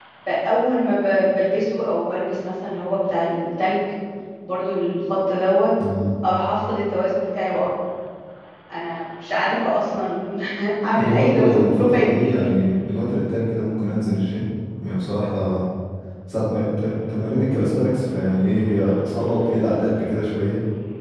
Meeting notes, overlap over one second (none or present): present